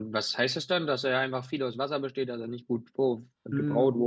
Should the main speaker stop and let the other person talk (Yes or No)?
Yes